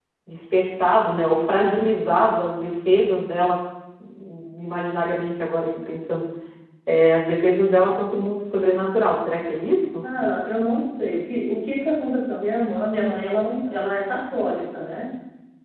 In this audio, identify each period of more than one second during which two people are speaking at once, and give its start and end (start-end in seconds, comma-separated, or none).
none